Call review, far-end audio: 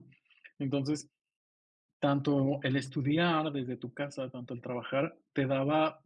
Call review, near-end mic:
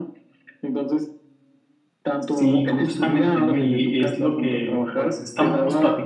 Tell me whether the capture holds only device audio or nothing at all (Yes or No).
No